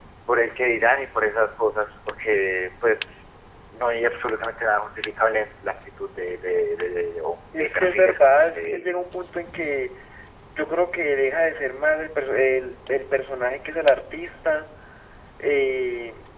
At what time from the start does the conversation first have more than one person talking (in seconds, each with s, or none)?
7.5 s